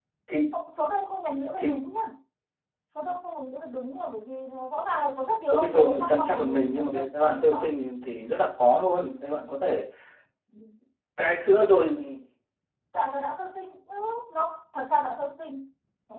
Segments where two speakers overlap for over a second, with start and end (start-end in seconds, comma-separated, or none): 5.5-7.7